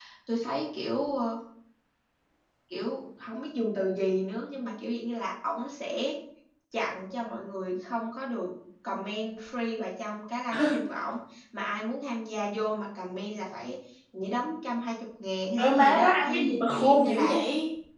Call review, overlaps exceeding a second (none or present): present